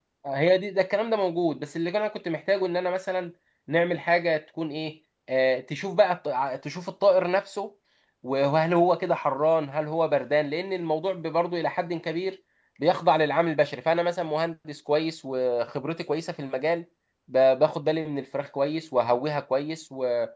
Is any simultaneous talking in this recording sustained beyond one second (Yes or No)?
No